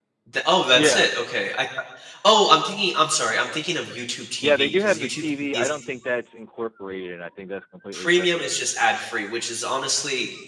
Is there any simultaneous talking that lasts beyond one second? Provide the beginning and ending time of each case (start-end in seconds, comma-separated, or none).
4.4-5.7